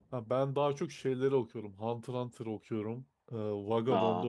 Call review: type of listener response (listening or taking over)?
listening